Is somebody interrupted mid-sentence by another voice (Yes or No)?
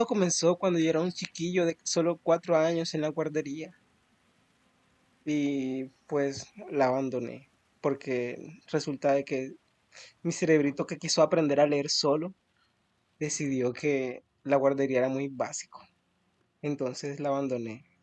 No